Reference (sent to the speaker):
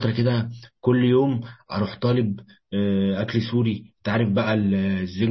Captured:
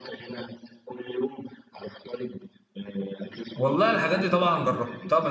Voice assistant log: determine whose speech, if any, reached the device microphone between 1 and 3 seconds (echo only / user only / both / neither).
echo only